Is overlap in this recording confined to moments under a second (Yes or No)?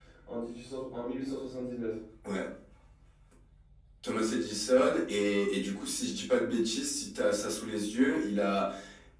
Yes